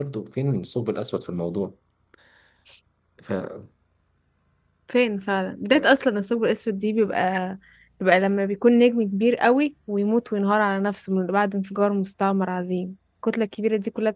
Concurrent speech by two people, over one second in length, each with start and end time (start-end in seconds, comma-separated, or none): none